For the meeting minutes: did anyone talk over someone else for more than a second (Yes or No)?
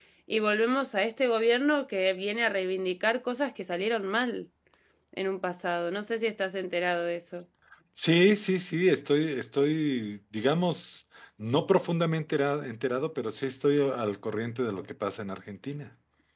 No